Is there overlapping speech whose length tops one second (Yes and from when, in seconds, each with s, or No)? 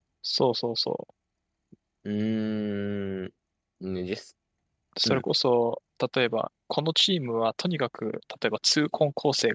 No